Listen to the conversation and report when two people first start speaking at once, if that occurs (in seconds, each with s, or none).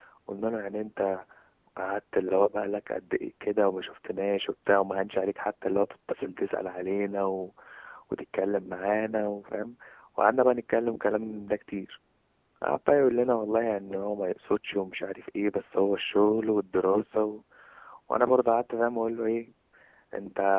none